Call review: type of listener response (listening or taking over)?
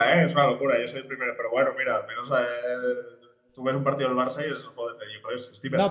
taking over